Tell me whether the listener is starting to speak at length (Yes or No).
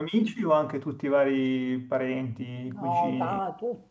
Yes